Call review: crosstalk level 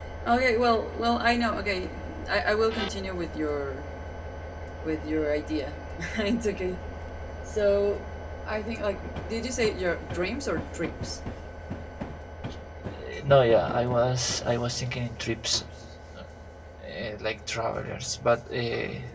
none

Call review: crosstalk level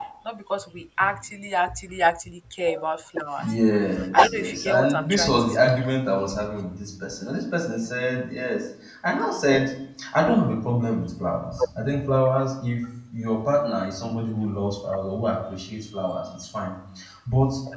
present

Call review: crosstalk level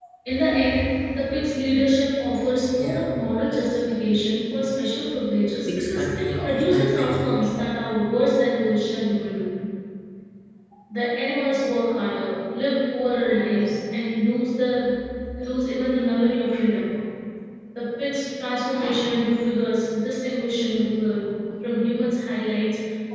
present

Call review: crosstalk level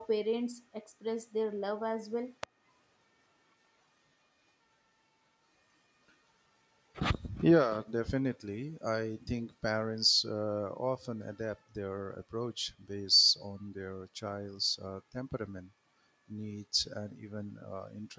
none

